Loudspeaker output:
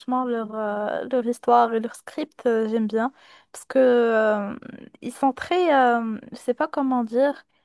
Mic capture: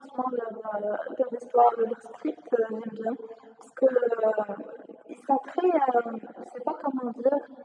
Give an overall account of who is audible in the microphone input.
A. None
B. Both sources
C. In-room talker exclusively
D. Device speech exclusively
D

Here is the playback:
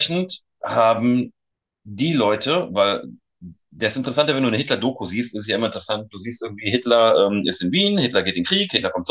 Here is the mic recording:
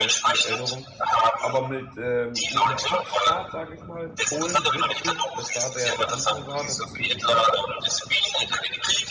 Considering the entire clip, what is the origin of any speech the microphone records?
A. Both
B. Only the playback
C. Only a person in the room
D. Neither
A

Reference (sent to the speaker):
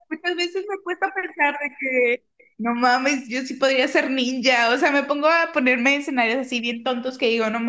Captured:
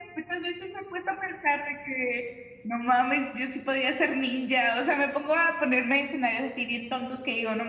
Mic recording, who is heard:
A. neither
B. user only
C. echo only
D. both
C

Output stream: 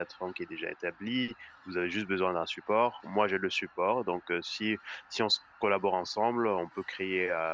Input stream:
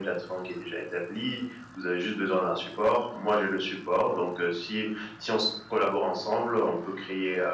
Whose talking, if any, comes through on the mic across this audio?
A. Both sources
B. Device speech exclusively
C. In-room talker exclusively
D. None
B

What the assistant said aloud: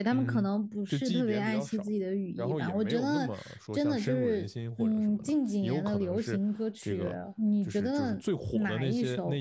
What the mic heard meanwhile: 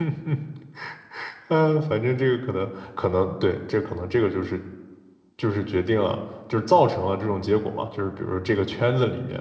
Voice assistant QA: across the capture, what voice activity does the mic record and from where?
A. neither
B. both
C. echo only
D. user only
D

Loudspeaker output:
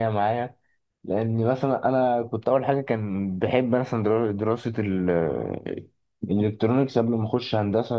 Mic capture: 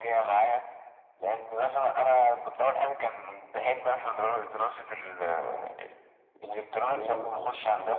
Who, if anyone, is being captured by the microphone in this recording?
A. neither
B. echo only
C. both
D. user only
C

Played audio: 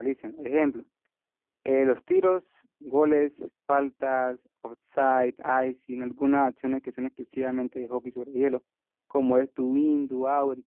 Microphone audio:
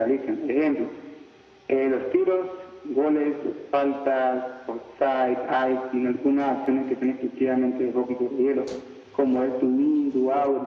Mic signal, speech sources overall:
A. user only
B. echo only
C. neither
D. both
B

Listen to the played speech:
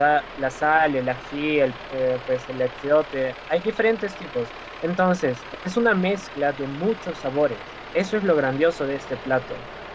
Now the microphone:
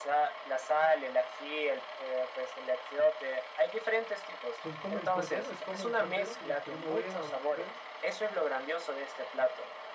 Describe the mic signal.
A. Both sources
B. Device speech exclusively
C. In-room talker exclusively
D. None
A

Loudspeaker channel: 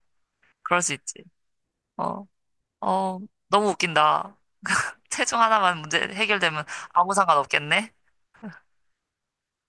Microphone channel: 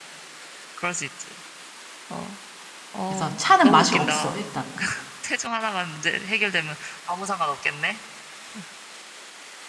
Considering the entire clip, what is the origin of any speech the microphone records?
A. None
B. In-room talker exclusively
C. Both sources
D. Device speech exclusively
C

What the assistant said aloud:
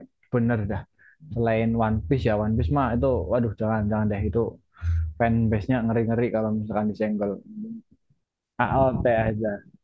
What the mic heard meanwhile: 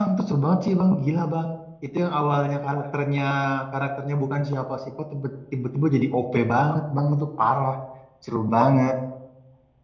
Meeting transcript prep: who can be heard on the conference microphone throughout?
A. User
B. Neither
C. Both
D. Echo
A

